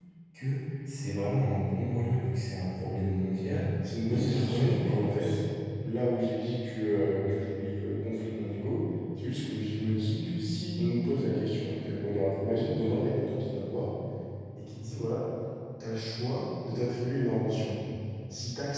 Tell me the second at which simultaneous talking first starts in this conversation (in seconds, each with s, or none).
4.1 s